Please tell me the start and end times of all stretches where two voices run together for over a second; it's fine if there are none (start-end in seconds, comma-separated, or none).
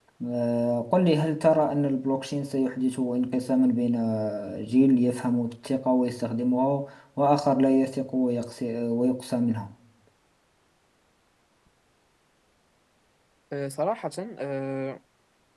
none